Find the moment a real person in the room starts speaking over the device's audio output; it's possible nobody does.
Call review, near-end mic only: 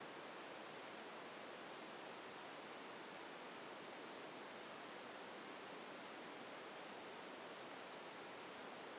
none

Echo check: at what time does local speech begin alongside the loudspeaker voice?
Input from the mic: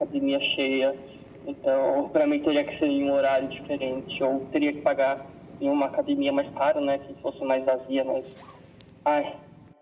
none

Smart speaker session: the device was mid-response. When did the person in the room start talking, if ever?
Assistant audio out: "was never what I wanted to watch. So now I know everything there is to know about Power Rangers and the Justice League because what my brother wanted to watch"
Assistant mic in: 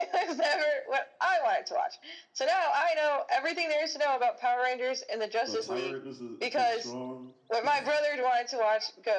5.4 s

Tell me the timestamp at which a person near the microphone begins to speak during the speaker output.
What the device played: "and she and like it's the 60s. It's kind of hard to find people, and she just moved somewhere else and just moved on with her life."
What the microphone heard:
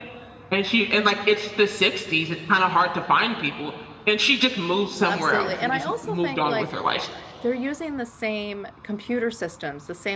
5.0 s

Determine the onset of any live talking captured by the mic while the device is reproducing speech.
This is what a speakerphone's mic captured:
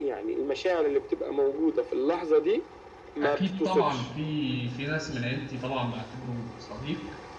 3.2 s

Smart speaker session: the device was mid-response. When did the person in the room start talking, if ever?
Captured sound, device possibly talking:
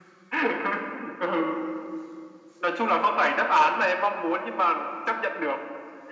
none

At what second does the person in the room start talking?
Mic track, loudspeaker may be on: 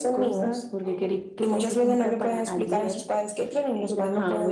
none

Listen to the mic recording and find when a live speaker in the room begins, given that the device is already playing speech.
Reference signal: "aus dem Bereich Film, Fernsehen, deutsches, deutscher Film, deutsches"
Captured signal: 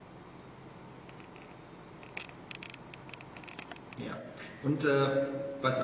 4.0 s

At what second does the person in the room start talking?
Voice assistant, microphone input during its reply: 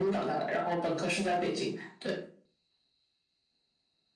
none

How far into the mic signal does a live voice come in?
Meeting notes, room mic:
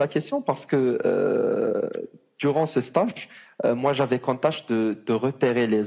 none

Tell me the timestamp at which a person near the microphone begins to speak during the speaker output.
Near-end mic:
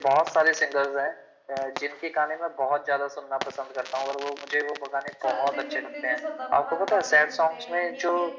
5.2 s

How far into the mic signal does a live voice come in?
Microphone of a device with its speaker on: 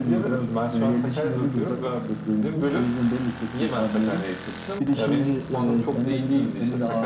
none

